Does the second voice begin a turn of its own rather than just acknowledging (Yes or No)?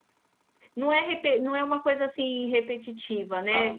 No